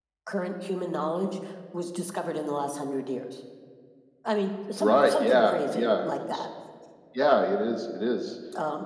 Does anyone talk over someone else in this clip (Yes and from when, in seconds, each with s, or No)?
Yes, from 4.8 s